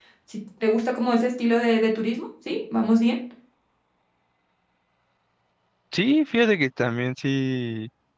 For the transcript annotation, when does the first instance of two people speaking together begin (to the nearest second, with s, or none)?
none